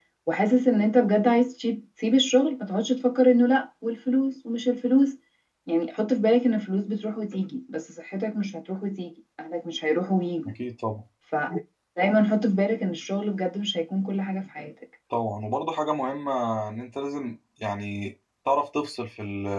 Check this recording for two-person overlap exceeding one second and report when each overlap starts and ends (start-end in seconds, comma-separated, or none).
none